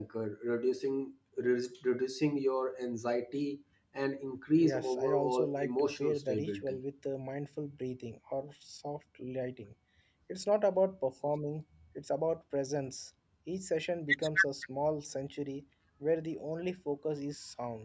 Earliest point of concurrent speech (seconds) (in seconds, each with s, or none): 4.6 s